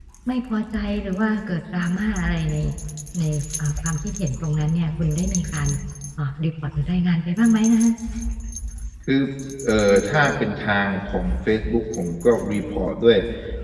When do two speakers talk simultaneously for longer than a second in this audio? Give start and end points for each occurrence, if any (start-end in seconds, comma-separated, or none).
none